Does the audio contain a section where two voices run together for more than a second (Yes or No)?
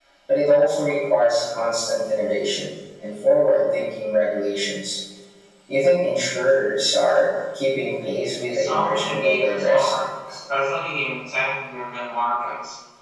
Yes